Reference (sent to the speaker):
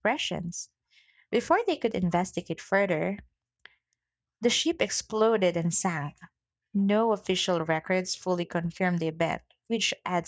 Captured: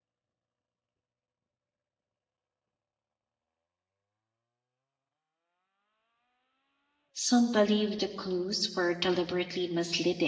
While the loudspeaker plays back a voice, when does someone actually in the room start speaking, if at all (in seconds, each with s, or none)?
7.1 s